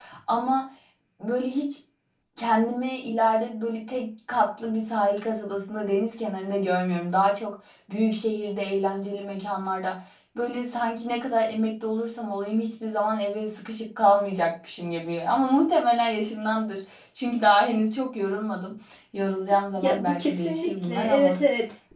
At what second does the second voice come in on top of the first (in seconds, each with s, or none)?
19.8 s